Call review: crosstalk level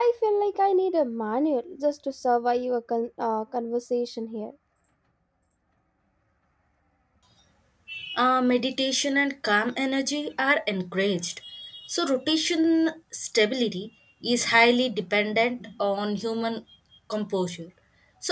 none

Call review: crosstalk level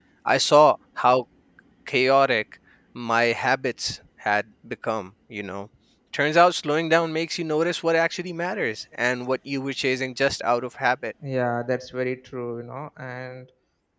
none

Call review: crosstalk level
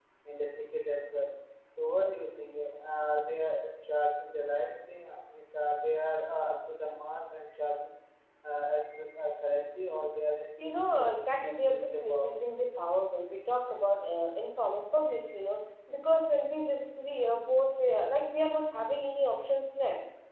present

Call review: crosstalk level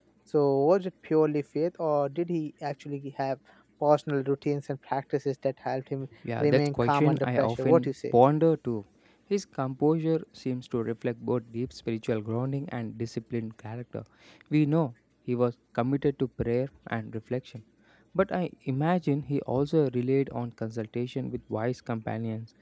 present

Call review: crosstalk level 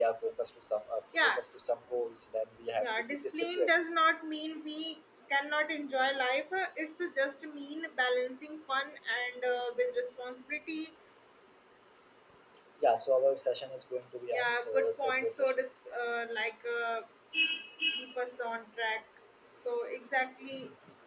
present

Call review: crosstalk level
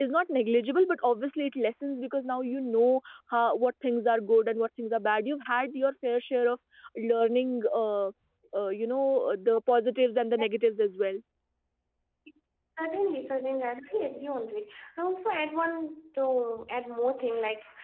none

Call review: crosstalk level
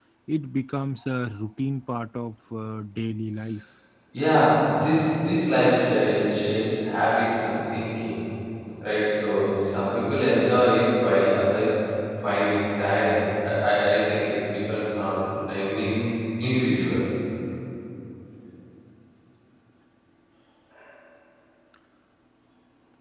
none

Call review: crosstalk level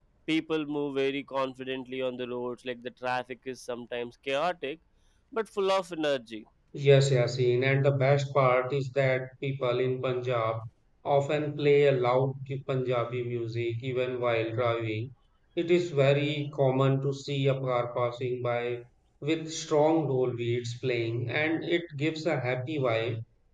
none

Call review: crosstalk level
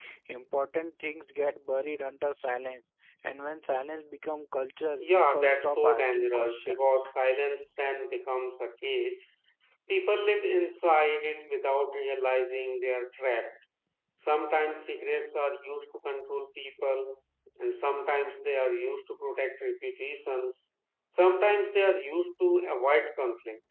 present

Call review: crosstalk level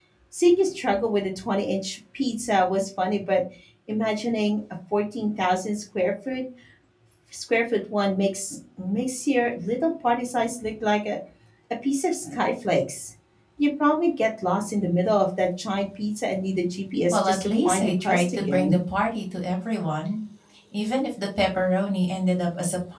present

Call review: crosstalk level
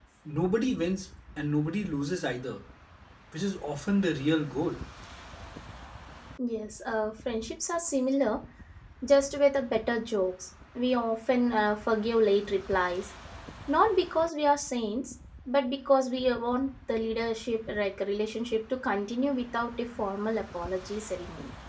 none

